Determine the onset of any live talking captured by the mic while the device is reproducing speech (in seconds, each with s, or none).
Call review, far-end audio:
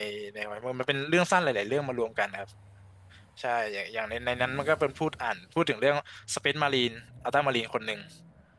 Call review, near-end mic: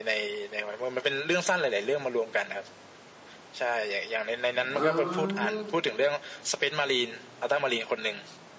4.7 s